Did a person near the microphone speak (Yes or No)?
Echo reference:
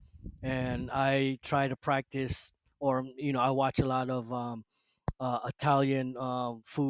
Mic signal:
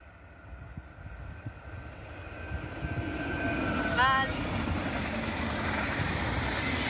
Yes